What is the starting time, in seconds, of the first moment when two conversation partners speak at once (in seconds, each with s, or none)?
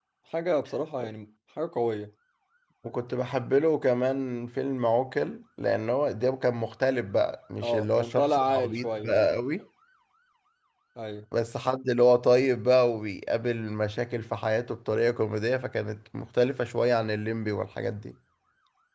7.6 s